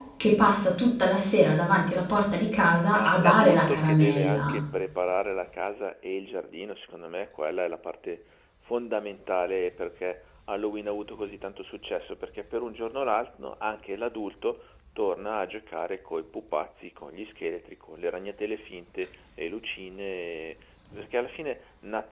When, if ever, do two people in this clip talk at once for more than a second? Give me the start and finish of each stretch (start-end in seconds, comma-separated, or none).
3.0-4.6